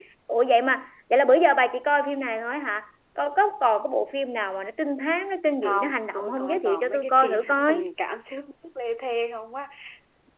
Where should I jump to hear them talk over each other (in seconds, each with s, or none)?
5.6 s